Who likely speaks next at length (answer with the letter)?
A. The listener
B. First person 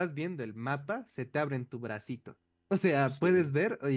B